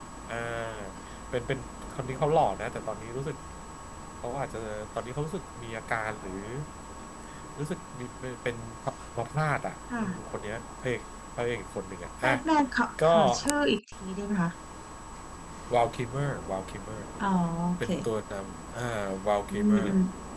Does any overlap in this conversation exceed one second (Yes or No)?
No